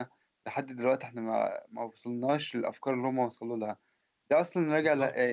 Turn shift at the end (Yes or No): No